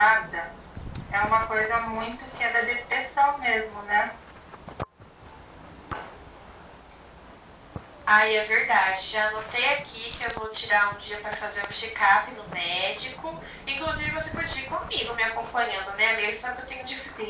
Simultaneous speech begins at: none

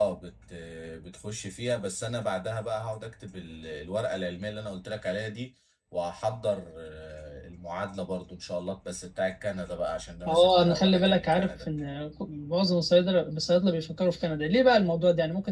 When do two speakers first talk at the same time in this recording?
10 s

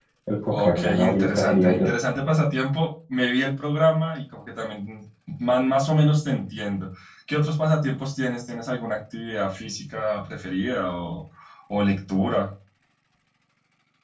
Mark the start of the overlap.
1 s

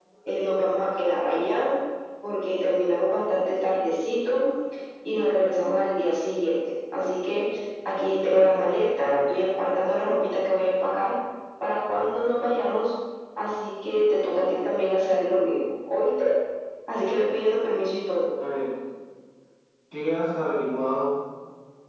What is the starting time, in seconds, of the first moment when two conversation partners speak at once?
none

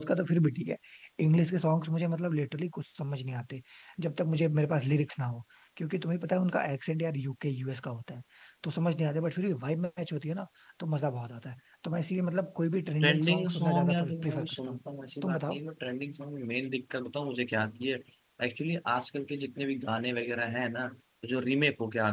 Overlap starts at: 13 s

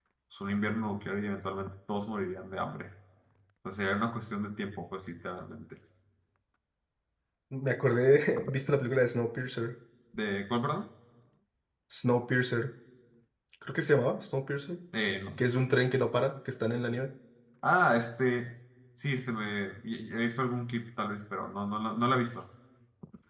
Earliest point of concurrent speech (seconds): none

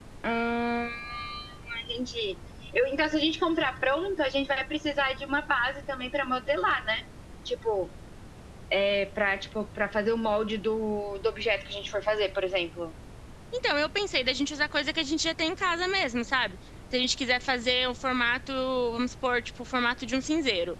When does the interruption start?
none

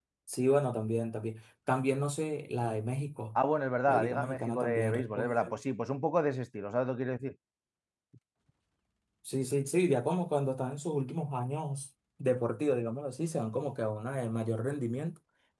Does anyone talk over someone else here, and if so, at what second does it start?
4 s

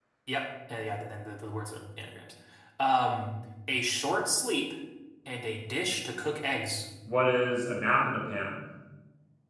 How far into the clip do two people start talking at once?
none

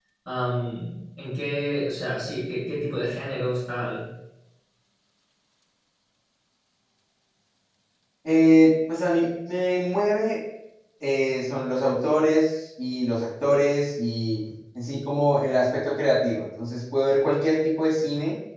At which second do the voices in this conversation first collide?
none

